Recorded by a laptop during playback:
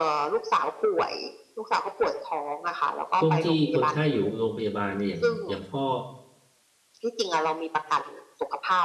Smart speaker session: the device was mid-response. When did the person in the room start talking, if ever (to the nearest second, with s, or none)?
3 s